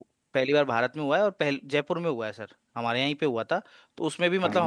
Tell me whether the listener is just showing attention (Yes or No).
Yes